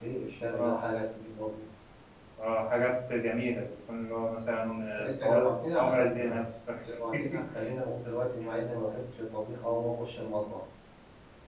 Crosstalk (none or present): present